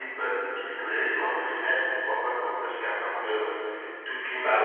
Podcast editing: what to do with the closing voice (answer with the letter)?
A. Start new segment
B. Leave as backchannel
A